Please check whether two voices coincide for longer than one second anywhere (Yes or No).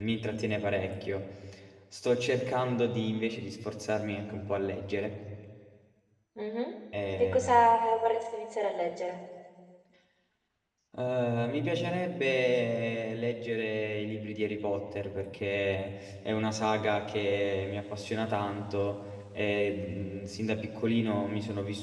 No